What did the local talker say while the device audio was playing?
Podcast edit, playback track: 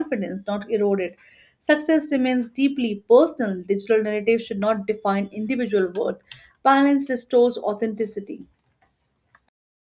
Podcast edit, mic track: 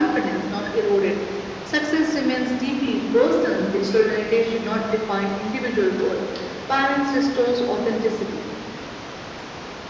none

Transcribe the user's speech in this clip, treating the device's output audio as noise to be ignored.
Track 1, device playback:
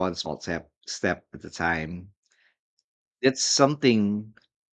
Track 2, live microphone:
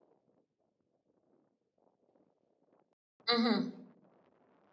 Mhm.

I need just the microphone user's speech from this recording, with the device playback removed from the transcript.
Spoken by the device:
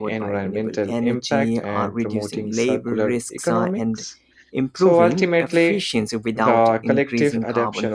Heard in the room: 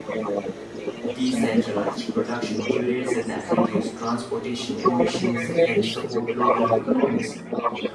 decentralized production units that reduce transportation emissions and support local economies.

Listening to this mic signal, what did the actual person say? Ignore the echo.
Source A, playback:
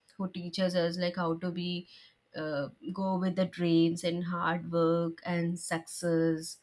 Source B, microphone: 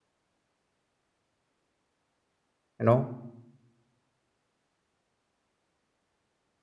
you know

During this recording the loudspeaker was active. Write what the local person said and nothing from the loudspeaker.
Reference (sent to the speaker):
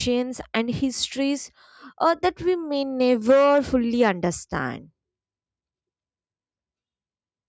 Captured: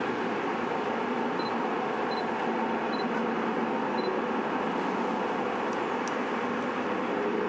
none

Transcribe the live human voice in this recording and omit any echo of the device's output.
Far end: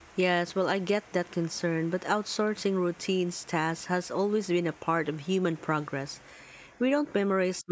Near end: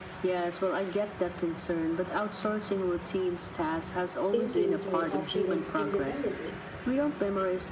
thinking through options independently.

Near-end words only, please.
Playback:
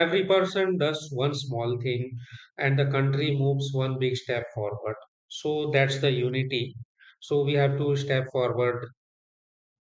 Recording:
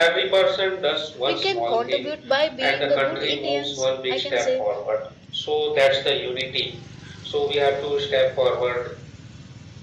we can contribute by being a good indians i can say

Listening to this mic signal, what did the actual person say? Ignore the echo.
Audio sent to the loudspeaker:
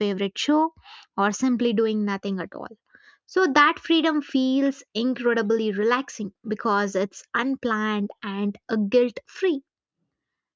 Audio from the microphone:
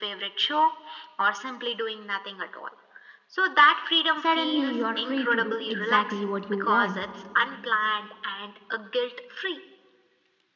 Suddenly, you are free to do exactly what you want,

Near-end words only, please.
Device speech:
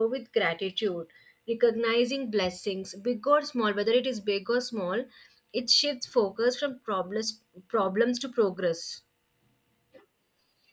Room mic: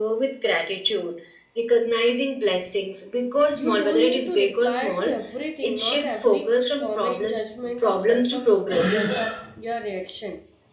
You don't need to reply to everything. Not every comment, judgment, or circumstance affect your reaction.

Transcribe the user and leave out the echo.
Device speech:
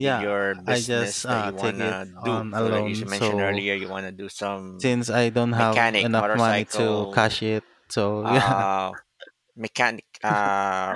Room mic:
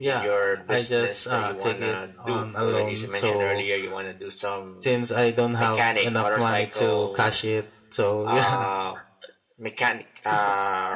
none

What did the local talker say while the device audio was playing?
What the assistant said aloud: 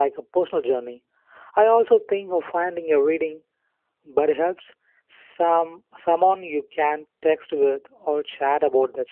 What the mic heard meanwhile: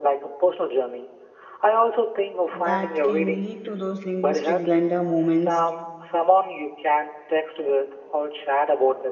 that can lead to those linguistic blender moments

